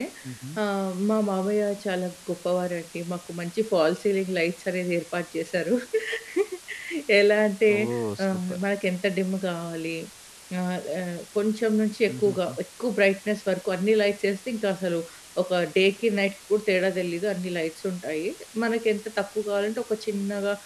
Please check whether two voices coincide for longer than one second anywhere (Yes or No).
No